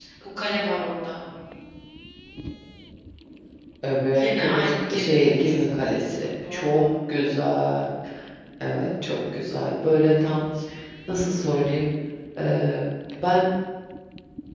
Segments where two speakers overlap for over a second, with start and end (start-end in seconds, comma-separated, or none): 4.1-5.8